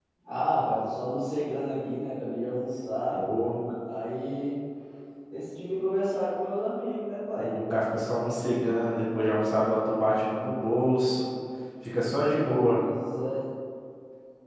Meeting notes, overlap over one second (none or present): none